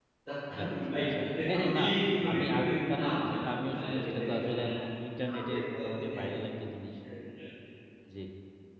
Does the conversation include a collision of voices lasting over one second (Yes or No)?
Yes